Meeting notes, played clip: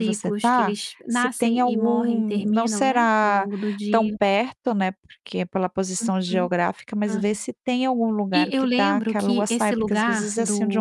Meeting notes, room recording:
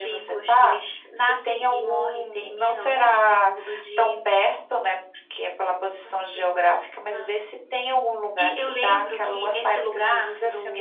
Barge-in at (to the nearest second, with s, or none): none